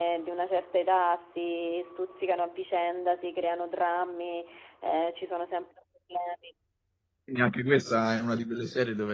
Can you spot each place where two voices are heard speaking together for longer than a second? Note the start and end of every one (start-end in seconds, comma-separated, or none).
none